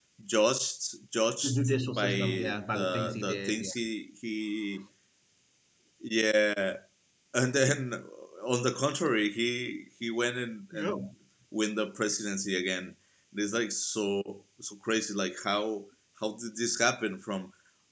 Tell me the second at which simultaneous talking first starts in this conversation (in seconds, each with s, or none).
1.4 s